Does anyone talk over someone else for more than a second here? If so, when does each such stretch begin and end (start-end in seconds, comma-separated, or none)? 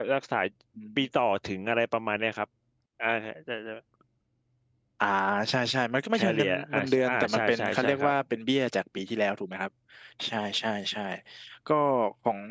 6.1-8.1